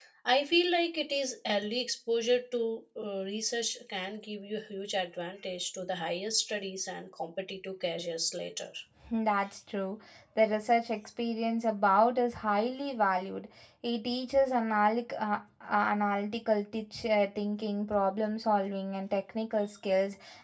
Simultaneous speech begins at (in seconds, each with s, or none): none